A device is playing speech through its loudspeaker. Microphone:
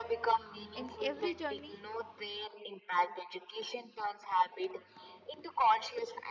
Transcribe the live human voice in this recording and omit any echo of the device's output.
In every journey,

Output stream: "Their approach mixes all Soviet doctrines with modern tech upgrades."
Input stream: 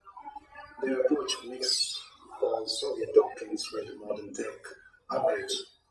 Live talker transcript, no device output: none

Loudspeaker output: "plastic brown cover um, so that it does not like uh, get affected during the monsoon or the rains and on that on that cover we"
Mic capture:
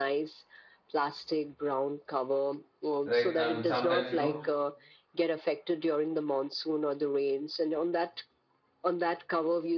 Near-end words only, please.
right and sometimes you know

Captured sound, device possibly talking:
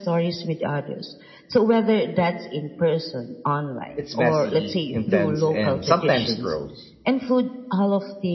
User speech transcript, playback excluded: It's messy, intense, and sometimes gross,

